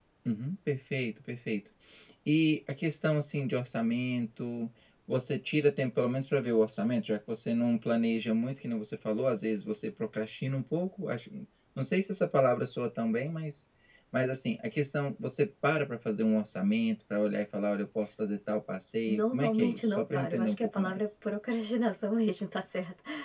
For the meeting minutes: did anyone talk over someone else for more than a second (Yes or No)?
Yes